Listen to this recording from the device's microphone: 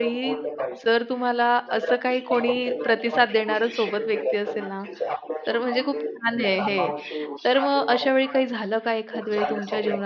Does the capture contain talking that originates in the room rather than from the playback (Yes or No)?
Yes